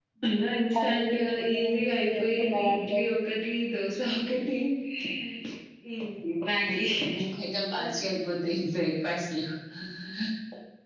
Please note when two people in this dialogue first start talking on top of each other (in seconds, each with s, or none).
0.8 s